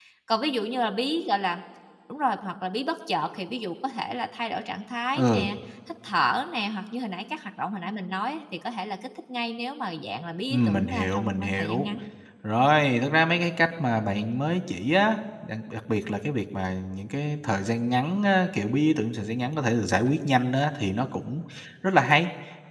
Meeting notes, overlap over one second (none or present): present